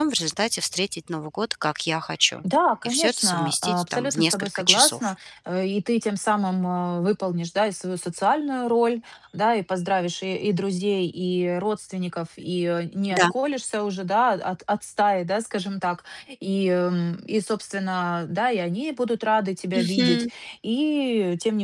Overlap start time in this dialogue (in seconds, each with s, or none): 2.9 s